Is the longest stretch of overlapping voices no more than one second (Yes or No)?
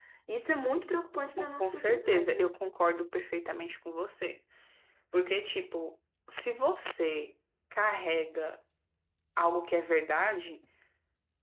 No